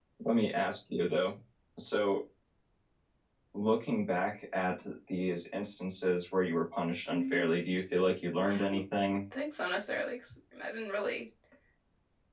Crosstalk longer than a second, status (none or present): none